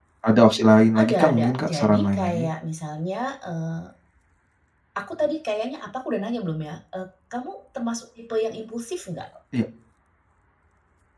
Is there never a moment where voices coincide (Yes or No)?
No